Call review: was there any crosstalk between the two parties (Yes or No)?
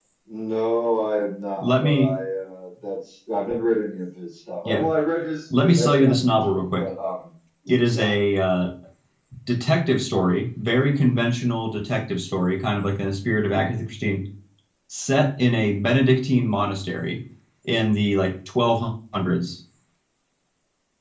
Yes